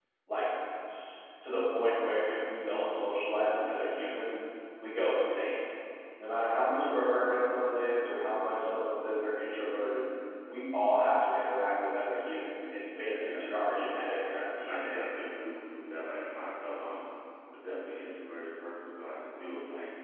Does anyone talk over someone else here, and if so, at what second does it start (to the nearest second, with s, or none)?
13 s